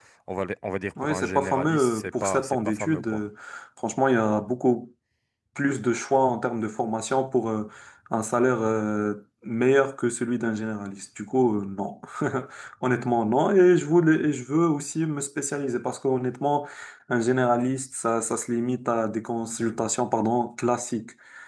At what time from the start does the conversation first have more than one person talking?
1.0 s

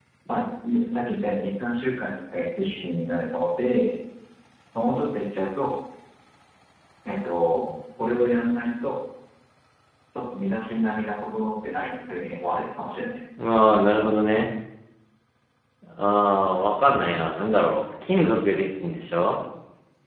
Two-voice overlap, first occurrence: none

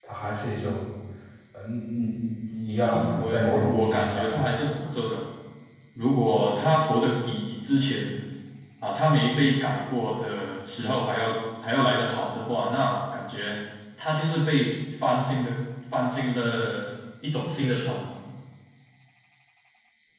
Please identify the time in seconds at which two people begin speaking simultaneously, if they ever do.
2.9 s

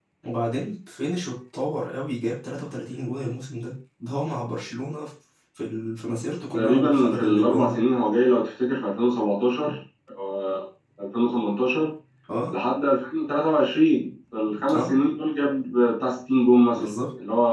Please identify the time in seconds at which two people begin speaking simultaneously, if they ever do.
6.5 s

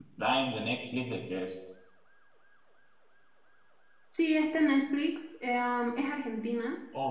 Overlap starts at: none

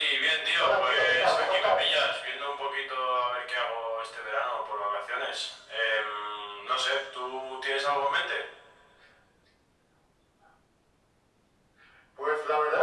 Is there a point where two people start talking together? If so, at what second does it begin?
0.6 s

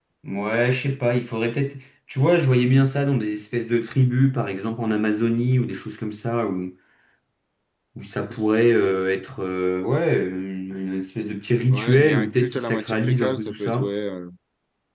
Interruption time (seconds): 11.7 s

